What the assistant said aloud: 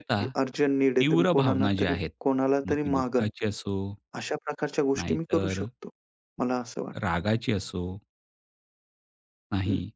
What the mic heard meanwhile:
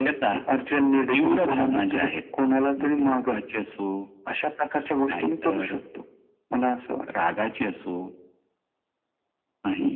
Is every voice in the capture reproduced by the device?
Yes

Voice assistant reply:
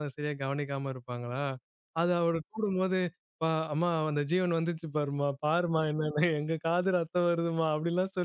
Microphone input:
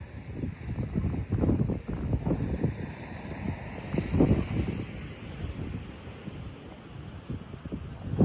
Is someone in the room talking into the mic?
No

